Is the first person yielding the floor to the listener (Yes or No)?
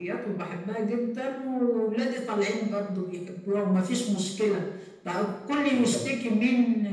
No